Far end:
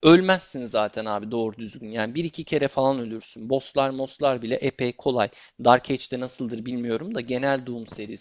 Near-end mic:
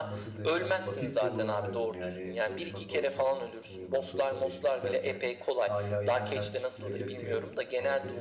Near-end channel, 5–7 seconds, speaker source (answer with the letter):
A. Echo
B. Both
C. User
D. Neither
B